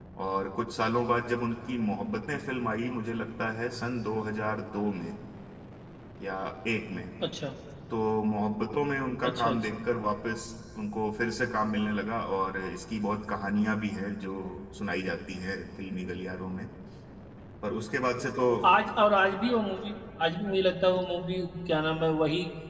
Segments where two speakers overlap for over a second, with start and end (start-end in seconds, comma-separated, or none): none